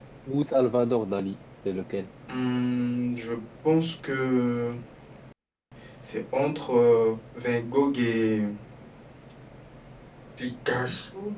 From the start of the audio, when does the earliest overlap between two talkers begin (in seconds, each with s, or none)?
none